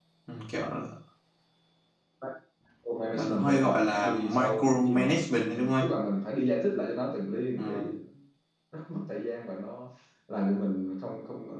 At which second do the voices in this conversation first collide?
3 s

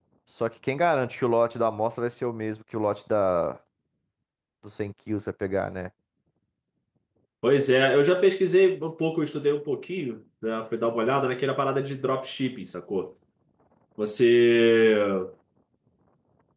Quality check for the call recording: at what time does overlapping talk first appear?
none

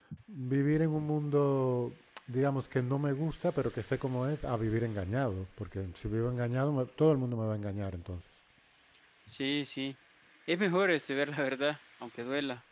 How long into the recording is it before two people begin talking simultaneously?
none

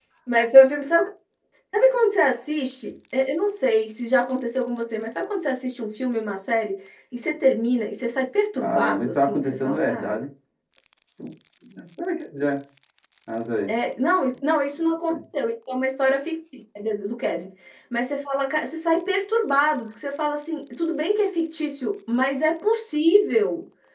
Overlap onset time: 9 s

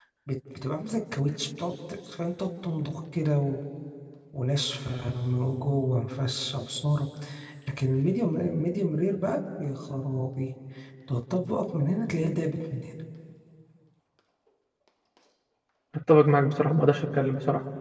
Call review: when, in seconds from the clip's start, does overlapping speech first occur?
none

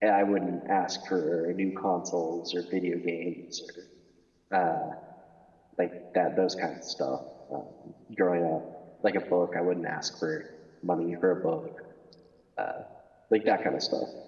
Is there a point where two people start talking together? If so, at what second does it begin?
none

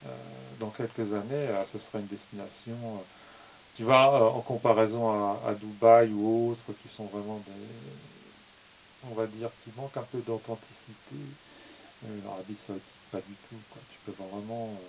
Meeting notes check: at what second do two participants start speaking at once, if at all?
none

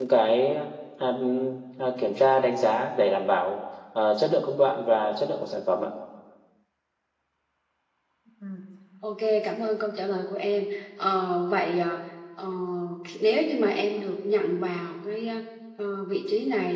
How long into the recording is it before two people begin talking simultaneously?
none

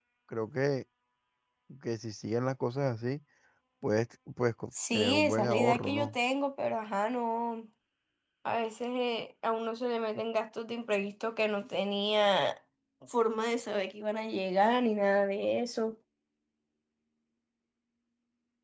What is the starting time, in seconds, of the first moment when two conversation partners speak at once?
5 s

